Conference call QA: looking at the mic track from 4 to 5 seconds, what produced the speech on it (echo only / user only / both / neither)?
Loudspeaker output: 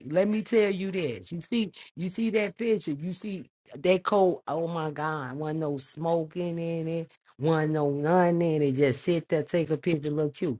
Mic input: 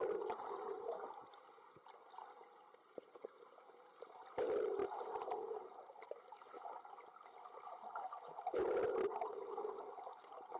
neither